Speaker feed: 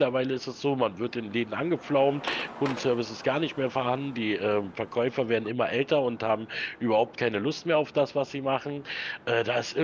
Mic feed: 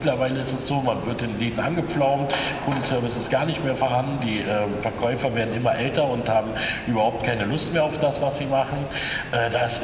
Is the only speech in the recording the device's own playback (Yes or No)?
Yes